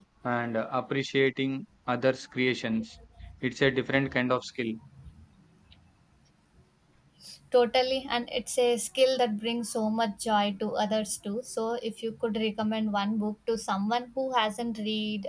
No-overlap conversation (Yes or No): Yes